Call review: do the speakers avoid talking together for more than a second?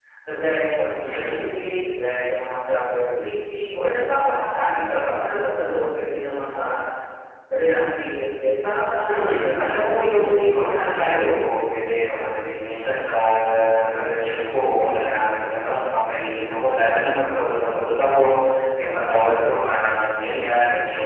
No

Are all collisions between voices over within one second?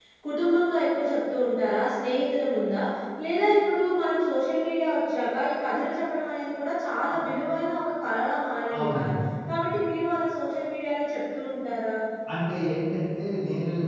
Yes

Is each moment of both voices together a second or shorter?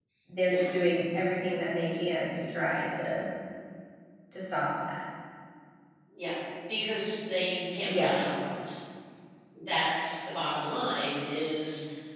Yes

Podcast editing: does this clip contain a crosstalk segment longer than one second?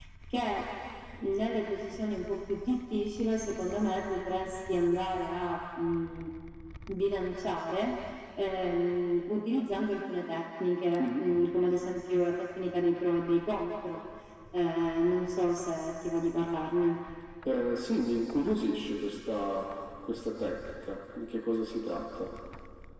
No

